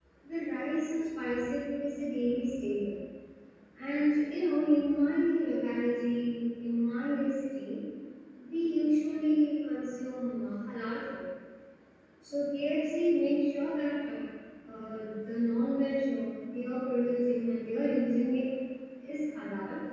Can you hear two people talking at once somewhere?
No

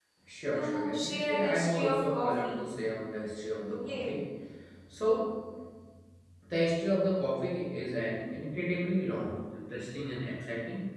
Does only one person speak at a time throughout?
No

